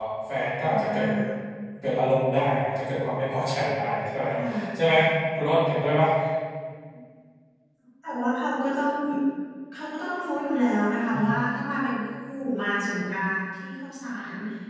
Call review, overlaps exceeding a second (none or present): none